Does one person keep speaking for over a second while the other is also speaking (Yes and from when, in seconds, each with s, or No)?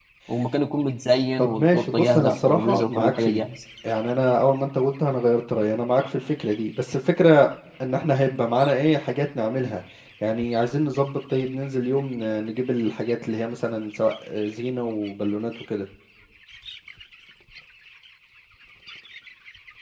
Yes, from 1.4 s